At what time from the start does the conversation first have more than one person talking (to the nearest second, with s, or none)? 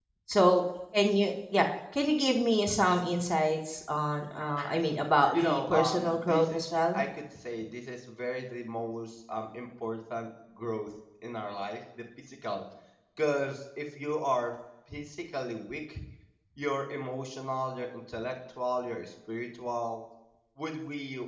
5 s